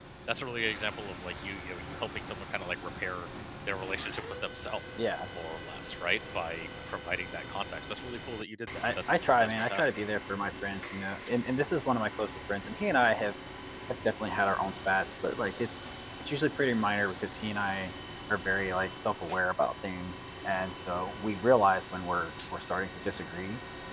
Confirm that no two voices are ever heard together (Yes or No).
No